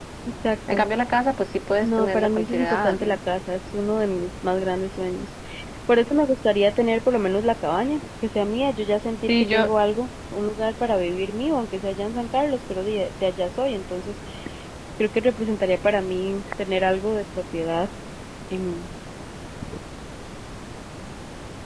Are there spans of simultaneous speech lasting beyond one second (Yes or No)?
Yes